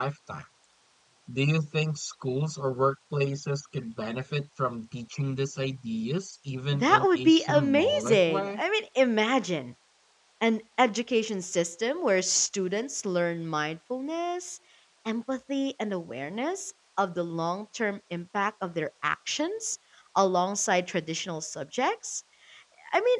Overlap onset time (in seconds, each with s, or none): 6.7 s